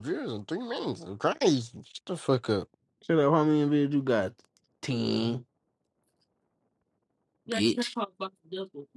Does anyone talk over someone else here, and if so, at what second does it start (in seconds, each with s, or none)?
none